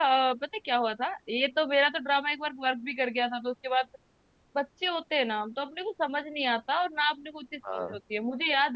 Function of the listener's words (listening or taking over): listening